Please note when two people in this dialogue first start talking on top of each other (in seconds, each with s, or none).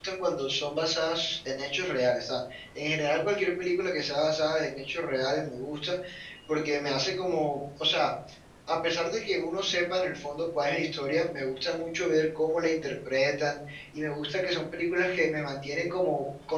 none